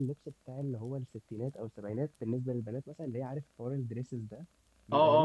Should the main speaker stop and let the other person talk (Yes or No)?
Yes